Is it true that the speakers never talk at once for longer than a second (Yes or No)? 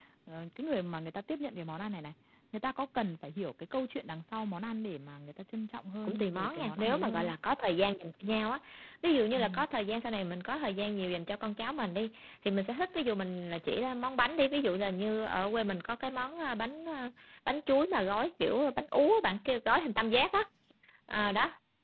No